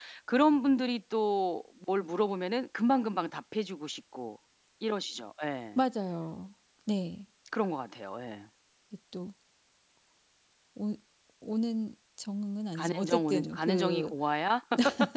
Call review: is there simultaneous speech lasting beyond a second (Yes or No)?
Yes